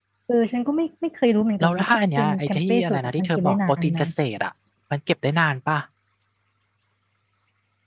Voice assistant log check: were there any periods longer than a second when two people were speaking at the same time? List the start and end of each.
1.6-4.0

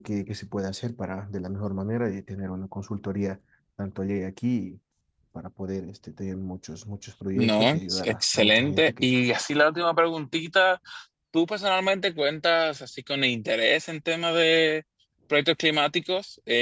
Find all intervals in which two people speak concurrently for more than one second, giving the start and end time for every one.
7.3-9.1

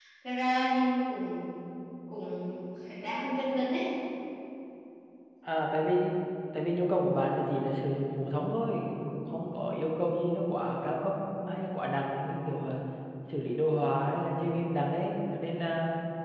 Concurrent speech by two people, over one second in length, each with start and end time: none

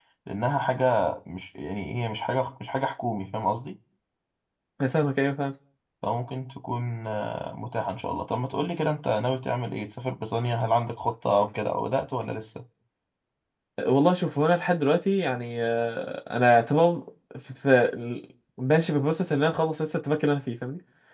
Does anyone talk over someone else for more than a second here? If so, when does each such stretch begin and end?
none

